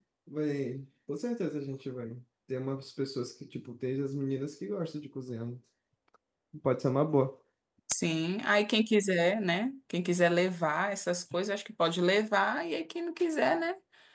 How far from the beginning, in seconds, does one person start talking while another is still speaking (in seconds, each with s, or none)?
none